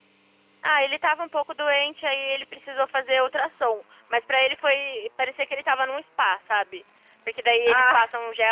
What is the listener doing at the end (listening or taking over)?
listening